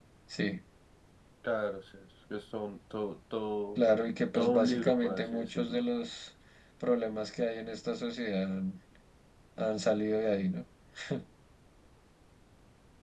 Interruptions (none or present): present